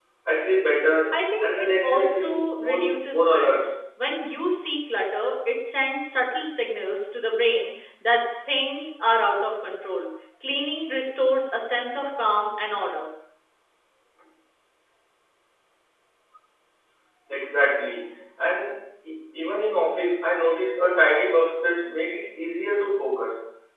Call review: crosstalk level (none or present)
present